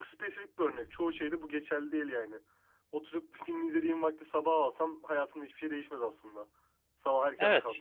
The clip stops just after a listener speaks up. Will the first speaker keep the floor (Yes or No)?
No